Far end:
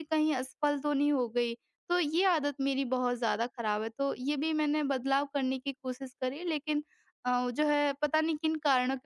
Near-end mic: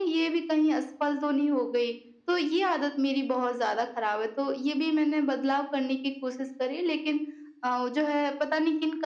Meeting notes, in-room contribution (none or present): none